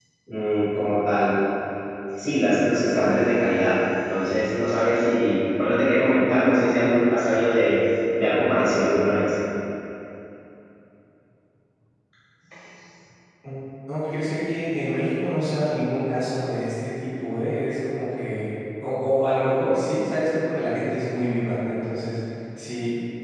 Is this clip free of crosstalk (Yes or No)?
Yes